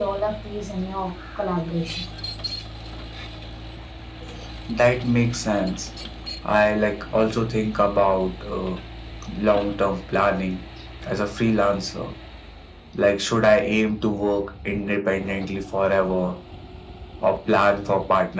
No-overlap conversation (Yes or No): Yes